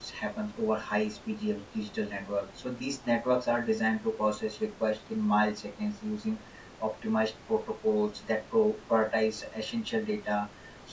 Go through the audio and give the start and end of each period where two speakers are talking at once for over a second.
none

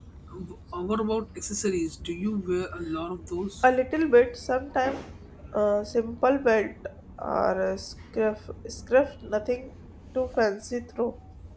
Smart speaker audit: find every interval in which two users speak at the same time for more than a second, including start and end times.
none

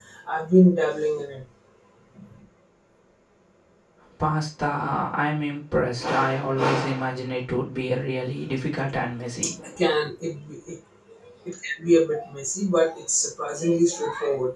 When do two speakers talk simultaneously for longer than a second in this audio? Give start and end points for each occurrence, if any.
none

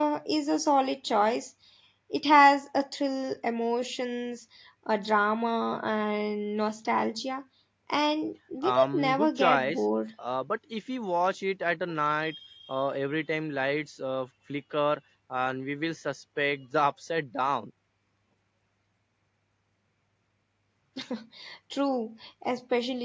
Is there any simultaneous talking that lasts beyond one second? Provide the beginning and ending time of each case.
8.6-9.8

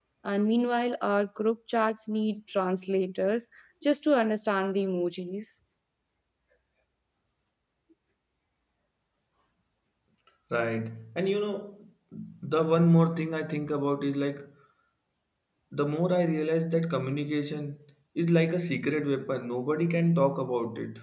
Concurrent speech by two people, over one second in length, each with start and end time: none

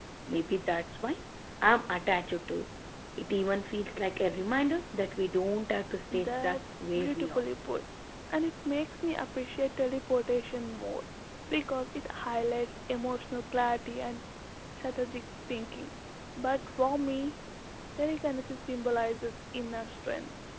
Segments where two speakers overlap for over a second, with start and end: 6.1-7.4

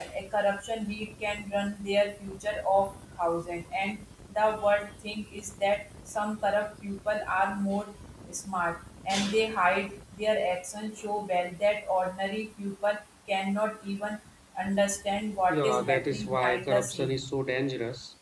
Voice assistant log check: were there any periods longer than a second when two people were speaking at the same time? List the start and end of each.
15.5-17.2

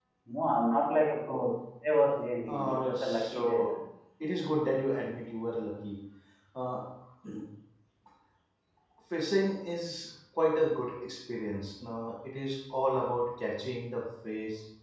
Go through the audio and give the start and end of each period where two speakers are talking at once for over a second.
2.5-3.7

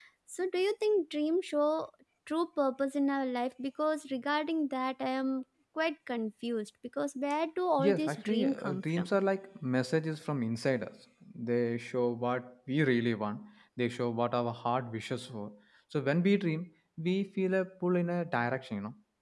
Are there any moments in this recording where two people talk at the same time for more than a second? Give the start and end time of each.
7.8-9.1

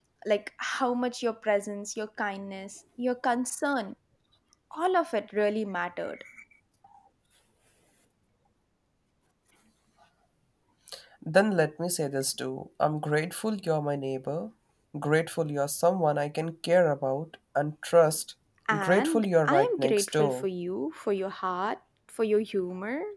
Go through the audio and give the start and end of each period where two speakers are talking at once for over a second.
18.8-20.4

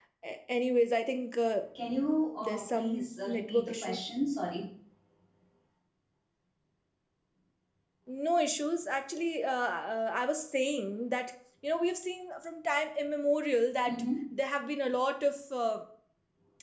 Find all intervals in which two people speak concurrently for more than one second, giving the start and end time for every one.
2.4-4.0

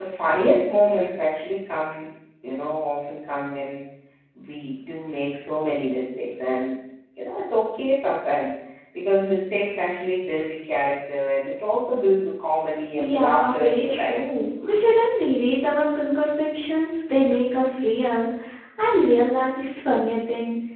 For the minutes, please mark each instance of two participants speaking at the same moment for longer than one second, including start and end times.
13.0-14.2

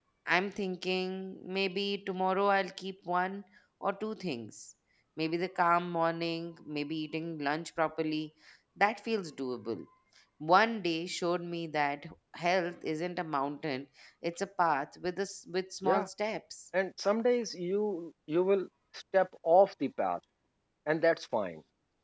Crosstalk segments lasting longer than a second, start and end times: none

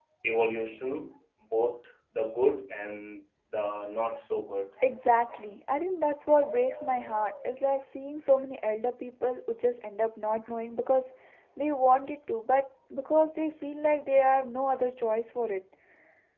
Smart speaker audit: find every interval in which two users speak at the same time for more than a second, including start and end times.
none

